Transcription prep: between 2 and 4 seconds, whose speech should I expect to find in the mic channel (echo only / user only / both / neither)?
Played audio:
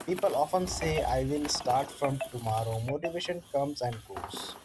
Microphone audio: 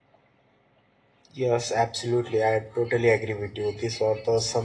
user only